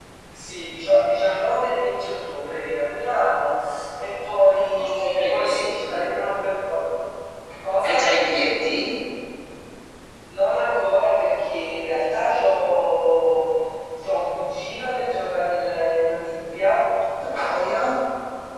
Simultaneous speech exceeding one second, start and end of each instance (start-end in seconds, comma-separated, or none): 4.8-6.1